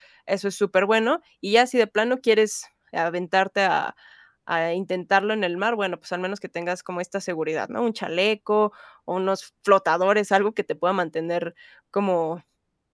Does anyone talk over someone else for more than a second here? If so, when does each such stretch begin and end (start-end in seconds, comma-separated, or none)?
none